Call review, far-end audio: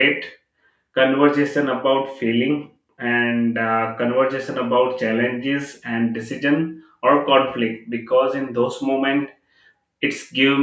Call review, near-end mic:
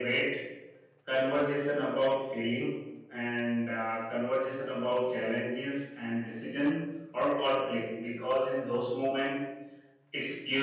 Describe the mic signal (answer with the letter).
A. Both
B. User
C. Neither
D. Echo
D